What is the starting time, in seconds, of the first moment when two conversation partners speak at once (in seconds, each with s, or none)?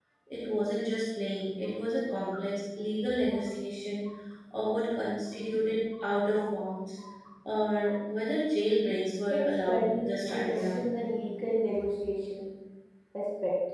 9.3 s